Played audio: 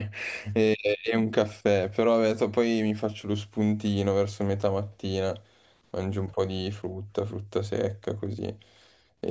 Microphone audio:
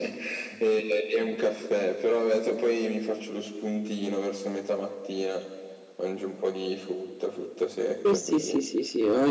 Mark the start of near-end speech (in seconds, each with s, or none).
8.0 s